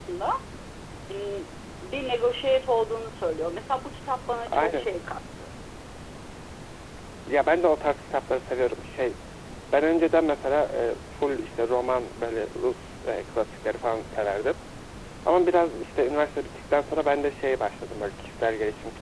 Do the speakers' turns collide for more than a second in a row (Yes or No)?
No